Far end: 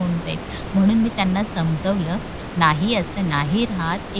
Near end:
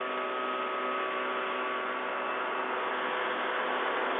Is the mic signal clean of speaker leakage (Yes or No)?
Yes